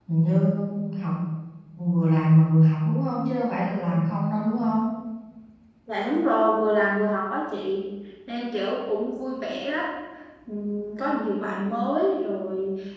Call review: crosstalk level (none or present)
none